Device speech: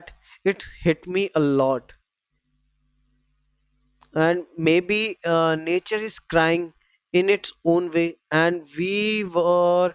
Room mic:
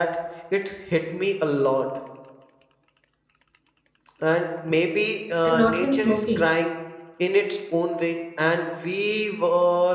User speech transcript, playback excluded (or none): and not when smoking